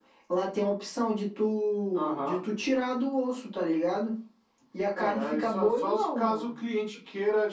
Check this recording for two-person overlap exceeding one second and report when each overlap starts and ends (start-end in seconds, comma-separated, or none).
5.0-6.5